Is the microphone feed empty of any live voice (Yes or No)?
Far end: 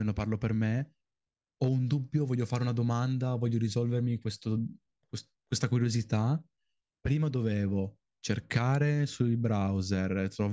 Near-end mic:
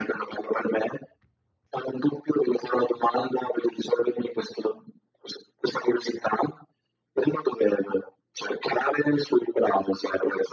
Yes